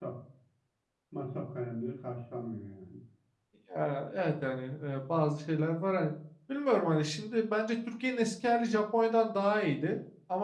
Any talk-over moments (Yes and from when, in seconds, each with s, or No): No